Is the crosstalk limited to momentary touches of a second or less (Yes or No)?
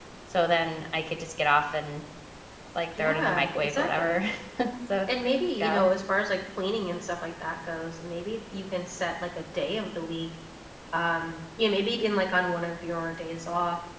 No